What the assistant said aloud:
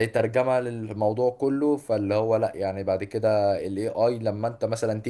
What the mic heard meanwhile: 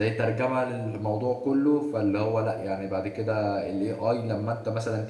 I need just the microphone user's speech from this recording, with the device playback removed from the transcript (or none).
none